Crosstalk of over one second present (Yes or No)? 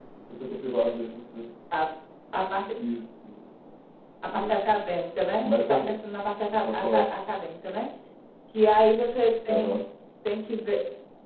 No